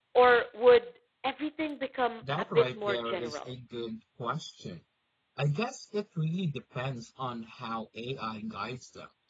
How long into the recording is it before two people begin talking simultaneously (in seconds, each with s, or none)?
2.2 s